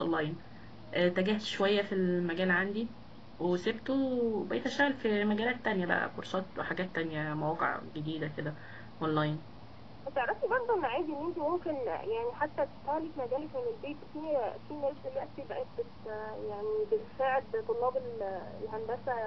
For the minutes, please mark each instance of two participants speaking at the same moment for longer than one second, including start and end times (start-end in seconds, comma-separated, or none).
none